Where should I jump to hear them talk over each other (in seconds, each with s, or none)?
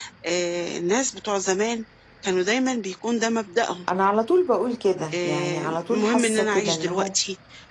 5.1 s